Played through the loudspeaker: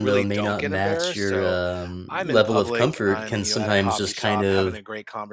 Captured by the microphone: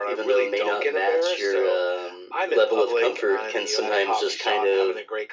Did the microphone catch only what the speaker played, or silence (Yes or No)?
Yes